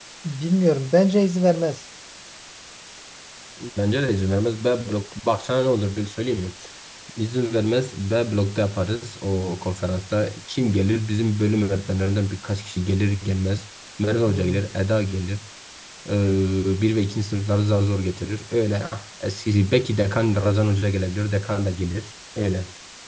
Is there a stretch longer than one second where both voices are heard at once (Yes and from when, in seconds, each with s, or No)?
No